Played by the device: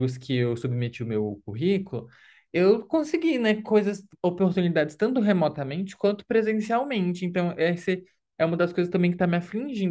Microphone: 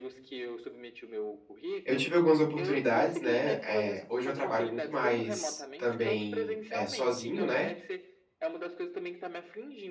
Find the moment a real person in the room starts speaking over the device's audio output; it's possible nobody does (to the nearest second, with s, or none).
2 s